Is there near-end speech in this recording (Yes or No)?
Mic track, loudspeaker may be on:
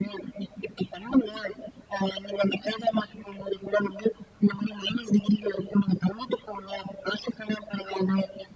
No